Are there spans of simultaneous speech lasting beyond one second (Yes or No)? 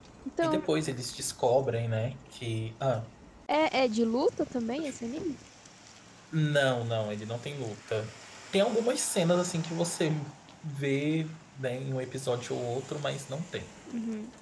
No